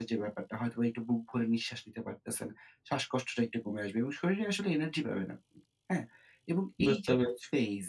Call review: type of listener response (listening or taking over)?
listening